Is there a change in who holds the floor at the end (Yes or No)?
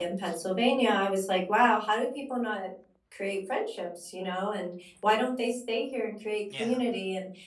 No